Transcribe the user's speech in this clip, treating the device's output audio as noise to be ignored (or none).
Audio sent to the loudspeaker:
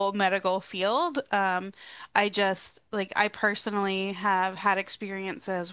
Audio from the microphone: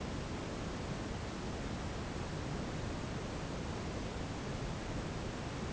none